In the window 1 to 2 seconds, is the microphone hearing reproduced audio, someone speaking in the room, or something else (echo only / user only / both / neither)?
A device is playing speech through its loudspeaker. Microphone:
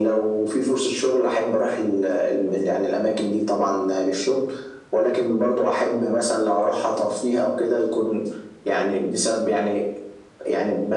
echo only